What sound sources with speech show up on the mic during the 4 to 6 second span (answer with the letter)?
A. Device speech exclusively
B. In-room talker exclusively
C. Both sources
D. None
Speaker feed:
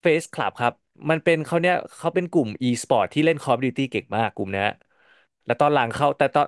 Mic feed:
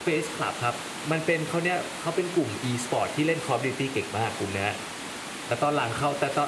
A